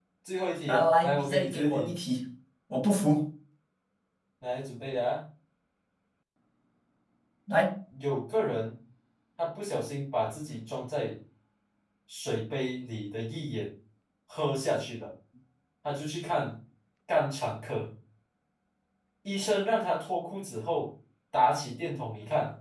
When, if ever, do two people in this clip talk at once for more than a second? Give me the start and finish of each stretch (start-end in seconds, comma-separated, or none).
0.7-1.9